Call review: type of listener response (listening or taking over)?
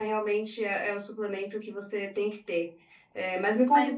listening